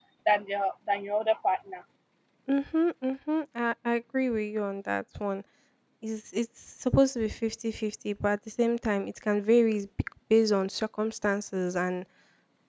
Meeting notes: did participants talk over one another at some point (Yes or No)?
No